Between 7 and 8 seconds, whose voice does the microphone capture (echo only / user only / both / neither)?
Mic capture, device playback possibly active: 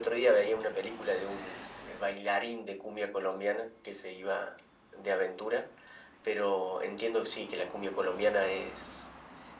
echo only